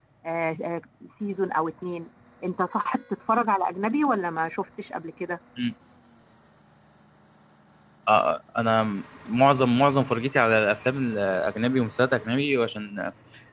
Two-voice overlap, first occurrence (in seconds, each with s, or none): none